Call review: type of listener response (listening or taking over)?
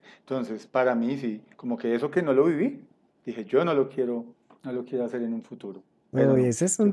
taking over